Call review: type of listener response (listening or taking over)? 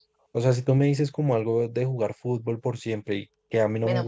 taking over